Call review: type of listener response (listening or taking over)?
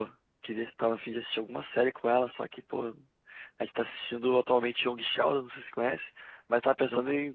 listening